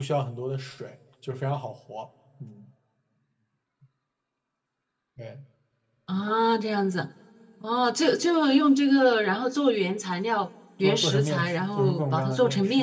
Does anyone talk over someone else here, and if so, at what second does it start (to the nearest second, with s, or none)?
11 s